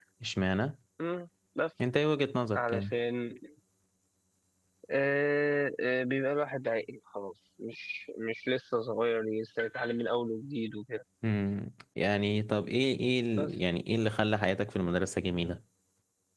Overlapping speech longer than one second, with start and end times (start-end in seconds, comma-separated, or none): none